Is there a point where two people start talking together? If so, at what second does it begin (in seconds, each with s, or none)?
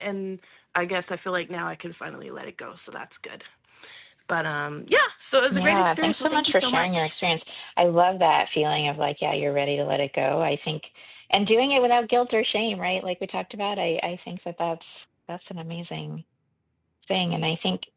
5.5 s